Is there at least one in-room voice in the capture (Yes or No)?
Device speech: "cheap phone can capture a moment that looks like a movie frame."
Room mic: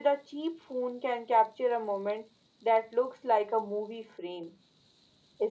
No